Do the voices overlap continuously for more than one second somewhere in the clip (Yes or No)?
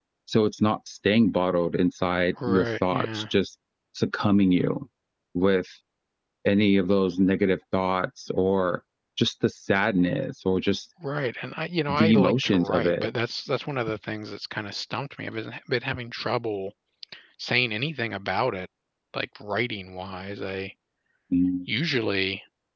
Yes